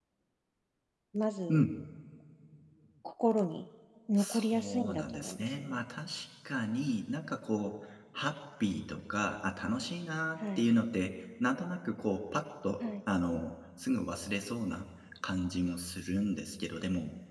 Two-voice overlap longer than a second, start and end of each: 4.2-5.8

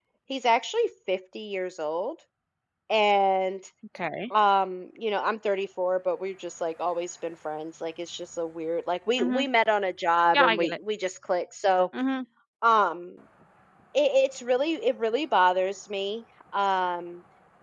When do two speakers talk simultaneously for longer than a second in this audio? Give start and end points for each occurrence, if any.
none

